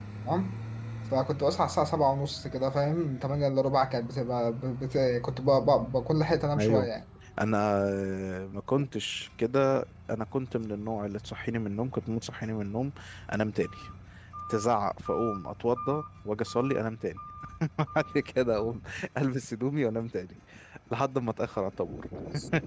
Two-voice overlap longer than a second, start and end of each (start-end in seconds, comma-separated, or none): none